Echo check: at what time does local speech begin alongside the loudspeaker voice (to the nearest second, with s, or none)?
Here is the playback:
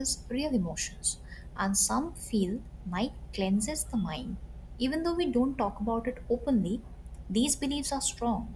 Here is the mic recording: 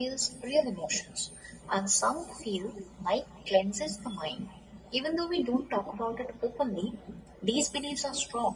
none